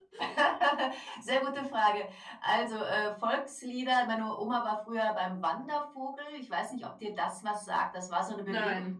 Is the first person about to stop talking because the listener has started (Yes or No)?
No